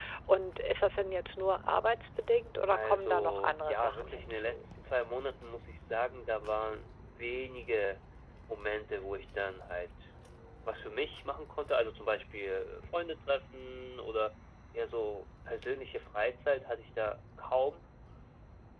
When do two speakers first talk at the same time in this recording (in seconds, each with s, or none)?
2.7 s